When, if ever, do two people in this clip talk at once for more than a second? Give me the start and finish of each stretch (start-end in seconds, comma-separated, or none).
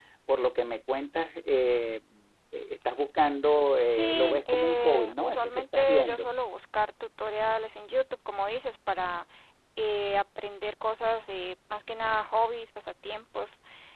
3.9-6.3